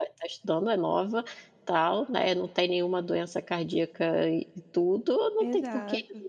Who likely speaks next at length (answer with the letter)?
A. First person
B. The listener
A